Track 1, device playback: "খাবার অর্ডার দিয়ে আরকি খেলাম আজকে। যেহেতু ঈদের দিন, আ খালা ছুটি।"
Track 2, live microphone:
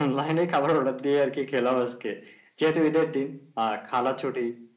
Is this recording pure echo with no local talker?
Yes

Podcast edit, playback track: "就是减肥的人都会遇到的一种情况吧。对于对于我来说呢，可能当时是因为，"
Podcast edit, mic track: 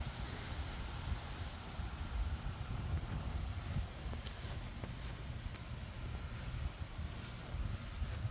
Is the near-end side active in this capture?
No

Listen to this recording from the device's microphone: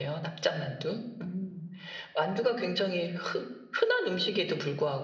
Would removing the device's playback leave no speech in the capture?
No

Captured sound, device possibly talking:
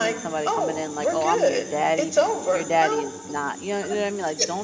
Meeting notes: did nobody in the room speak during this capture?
No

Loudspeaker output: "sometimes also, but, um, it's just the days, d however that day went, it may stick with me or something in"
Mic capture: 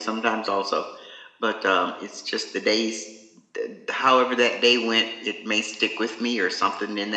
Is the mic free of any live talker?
Yes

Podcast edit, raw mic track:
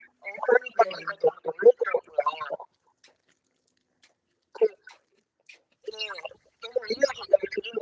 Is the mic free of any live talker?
No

